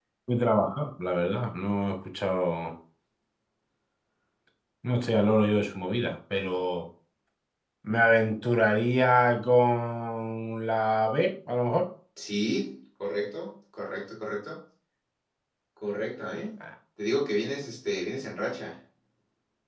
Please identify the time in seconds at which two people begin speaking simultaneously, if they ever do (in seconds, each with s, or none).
none